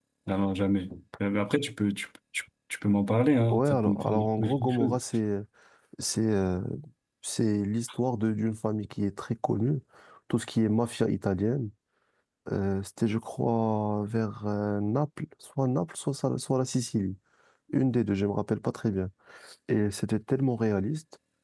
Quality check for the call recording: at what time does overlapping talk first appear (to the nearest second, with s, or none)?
4 s